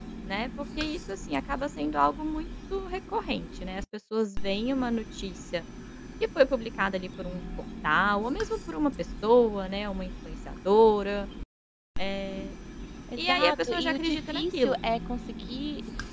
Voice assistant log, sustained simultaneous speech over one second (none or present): present